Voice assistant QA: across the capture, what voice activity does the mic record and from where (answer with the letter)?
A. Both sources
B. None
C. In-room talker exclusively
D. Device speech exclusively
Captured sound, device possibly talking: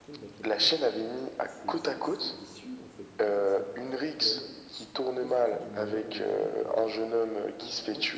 A